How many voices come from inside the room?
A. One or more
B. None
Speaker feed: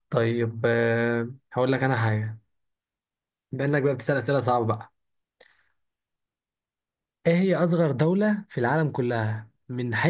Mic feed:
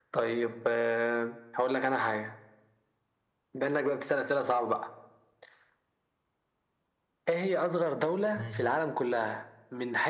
A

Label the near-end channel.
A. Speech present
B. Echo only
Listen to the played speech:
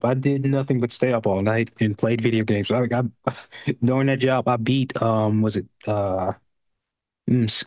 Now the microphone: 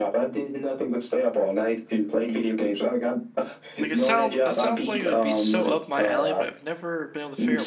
A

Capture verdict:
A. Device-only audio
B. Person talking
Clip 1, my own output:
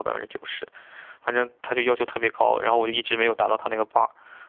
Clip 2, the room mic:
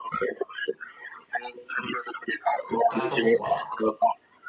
B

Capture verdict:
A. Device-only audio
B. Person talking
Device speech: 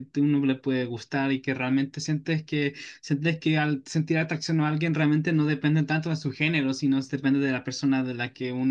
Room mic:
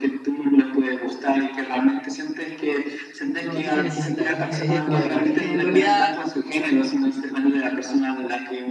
B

